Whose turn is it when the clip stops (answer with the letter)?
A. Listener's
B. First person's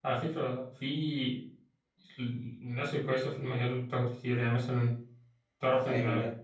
B